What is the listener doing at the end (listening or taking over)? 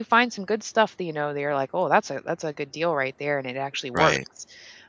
listening